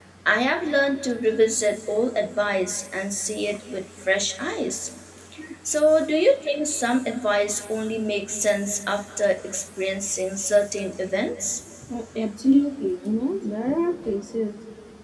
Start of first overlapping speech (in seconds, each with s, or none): none